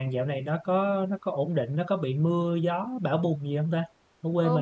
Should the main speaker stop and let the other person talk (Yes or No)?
Yes